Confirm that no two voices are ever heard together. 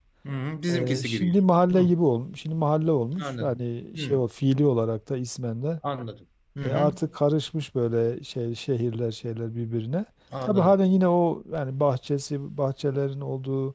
No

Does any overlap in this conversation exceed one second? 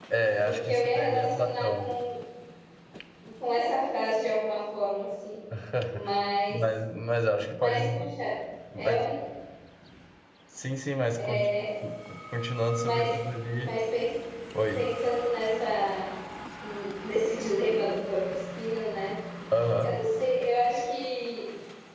Yes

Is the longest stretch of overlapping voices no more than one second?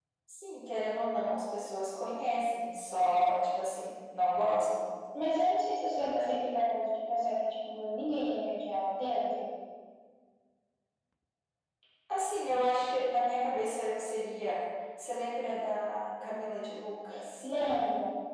Yes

